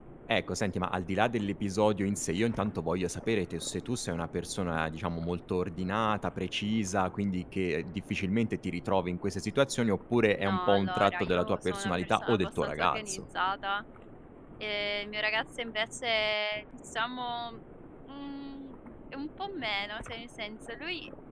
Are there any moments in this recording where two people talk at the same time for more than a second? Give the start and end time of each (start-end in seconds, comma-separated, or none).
10.4-13.2